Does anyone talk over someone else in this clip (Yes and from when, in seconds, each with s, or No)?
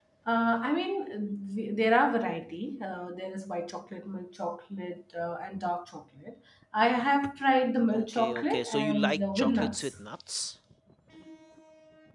Yes, from 7.9 s